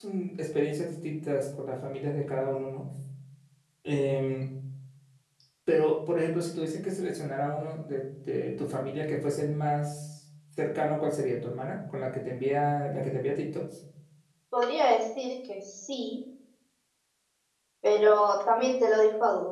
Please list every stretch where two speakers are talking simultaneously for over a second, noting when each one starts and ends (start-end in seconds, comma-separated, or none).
none